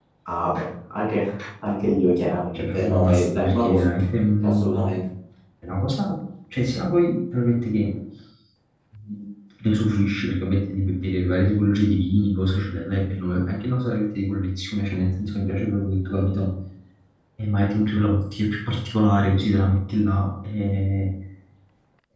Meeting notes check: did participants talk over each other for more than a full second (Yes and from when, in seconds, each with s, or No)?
Yes, from 2.5 s